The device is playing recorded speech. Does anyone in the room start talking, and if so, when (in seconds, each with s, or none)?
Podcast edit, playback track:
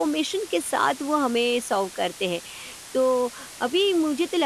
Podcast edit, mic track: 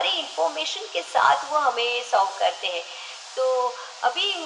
none